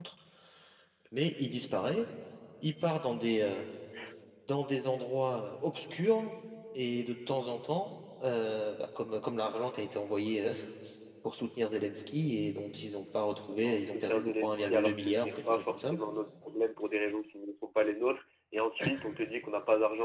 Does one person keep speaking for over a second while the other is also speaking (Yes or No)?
Yes